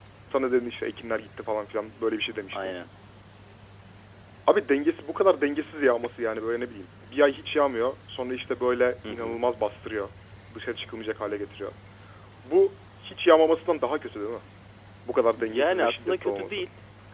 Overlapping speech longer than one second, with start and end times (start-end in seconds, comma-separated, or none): 15.4-16.6